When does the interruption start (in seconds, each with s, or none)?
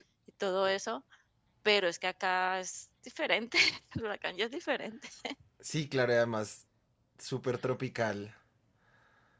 none